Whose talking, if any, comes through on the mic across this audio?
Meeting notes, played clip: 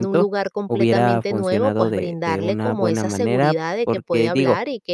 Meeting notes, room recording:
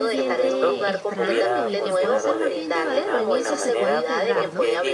both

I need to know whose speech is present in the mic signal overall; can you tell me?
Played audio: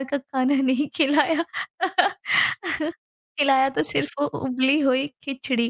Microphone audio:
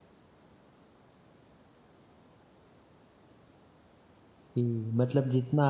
user only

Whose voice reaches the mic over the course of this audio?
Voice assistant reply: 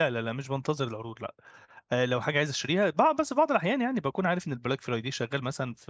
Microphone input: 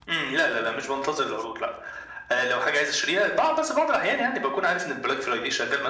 echo only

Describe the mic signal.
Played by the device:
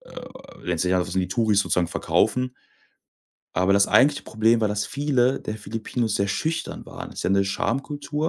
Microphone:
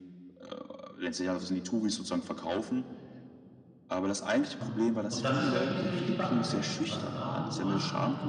both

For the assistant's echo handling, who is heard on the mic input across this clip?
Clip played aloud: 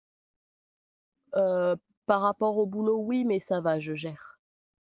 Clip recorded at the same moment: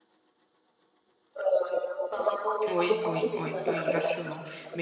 both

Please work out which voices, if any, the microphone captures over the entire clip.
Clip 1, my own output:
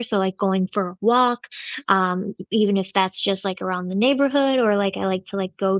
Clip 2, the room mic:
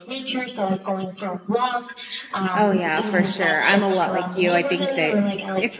both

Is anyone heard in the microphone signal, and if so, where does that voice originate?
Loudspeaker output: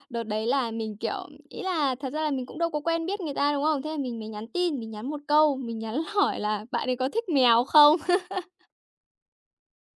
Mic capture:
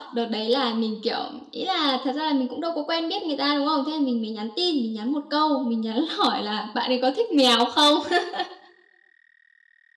echo only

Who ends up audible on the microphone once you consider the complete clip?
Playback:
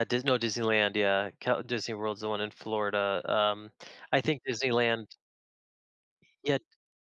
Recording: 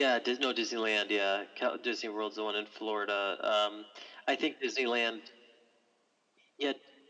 echo only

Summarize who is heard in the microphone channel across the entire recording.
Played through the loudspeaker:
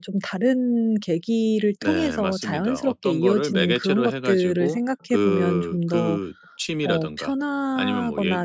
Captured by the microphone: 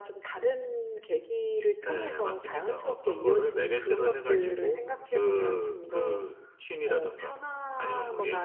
echo only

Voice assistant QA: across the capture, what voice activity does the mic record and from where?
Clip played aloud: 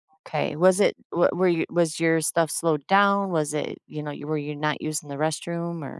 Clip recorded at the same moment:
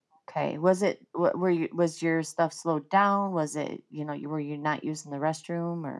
echo only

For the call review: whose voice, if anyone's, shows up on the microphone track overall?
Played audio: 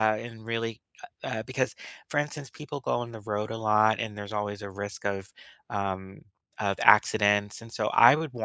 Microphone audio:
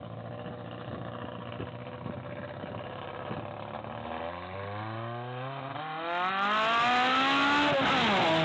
neither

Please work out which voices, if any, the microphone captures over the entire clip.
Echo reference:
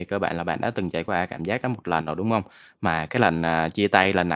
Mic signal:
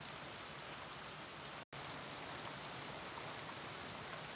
neither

